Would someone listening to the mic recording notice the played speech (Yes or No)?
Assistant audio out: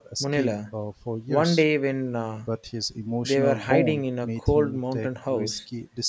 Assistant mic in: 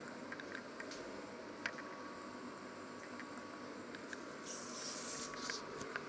No